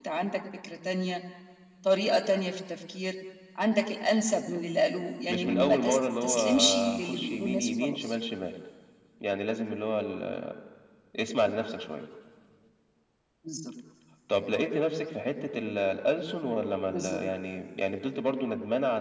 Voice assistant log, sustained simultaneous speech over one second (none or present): present